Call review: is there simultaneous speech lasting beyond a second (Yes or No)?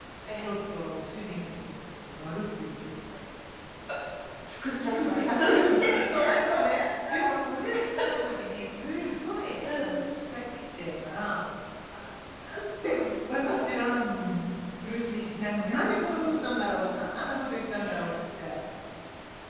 Yes